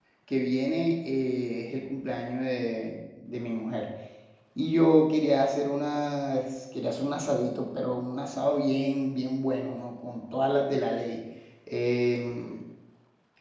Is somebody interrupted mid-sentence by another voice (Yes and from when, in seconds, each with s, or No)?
No